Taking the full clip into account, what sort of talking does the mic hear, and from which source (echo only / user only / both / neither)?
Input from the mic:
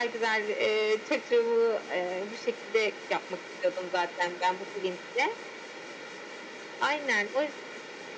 echo only